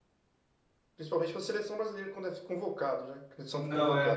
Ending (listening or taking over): listening